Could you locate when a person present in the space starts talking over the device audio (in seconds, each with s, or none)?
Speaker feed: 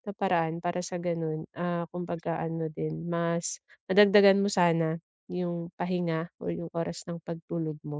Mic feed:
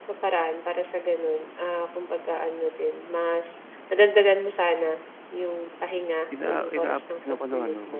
6.3 s